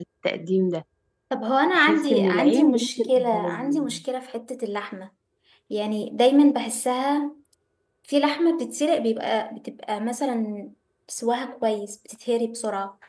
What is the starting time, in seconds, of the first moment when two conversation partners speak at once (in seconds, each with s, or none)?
1.7 s